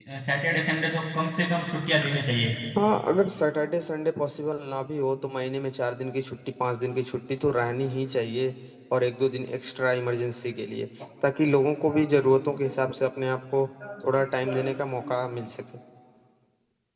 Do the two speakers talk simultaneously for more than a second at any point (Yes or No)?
No